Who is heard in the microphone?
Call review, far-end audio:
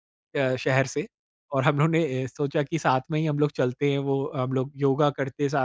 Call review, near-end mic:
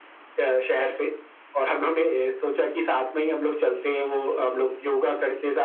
echo only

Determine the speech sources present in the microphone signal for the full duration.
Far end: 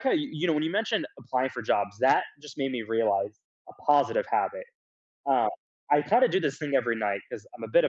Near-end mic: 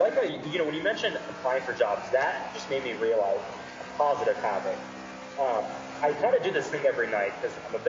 echo only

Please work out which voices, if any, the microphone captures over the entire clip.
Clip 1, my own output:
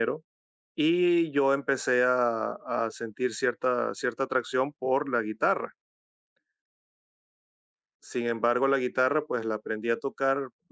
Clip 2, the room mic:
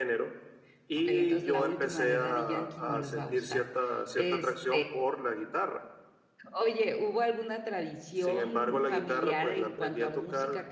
both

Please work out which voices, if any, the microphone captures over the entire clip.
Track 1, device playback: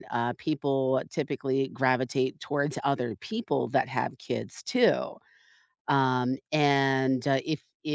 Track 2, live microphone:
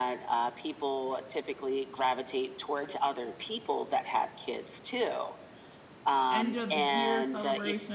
both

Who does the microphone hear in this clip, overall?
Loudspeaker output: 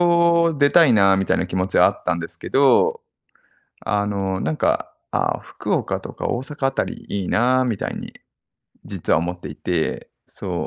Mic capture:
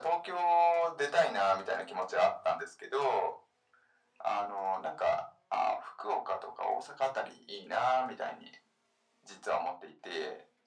echo only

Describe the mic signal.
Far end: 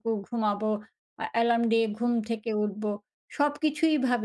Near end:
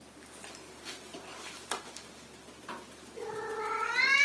neither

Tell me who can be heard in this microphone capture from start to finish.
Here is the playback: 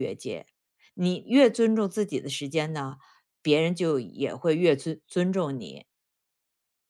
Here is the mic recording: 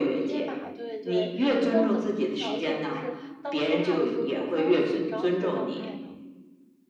both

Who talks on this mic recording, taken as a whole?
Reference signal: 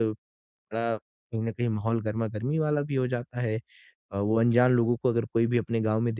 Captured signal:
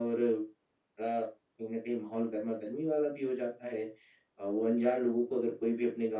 echo only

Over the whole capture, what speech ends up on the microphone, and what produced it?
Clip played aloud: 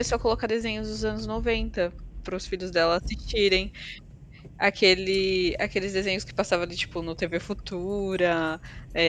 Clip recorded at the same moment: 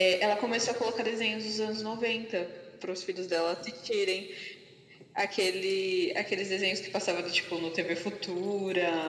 echo only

